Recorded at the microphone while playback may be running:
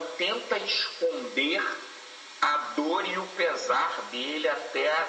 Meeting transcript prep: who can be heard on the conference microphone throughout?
echo only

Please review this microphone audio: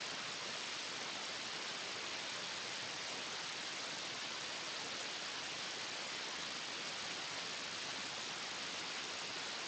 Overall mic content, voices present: neither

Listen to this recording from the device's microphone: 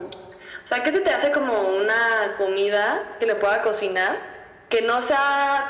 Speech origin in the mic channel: echo only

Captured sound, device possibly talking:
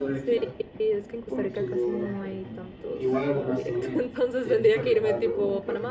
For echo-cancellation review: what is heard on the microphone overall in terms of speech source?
both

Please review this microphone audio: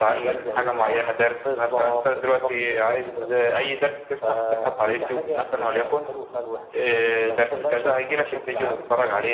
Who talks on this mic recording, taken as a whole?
echo only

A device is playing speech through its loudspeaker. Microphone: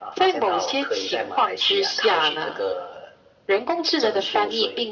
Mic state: echo only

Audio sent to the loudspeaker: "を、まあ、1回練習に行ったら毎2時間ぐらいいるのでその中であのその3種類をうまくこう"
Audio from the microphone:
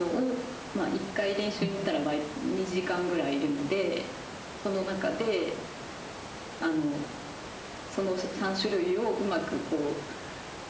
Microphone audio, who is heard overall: both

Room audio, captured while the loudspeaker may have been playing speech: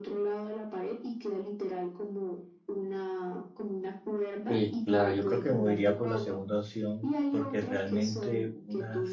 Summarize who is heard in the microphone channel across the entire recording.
both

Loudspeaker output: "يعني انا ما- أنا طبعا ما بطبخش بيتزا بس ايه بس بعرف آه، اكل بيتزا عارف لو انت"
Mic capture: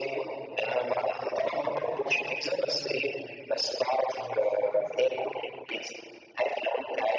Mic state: both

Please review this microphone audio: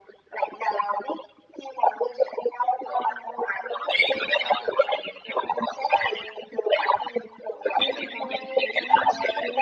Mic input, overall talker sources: both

